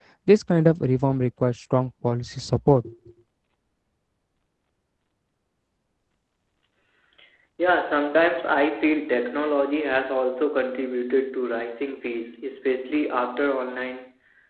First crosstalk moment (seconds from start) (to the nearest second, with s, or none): none